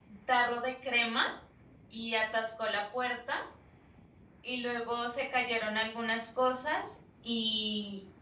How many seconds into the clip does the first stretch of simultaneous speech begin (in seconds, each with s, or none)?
none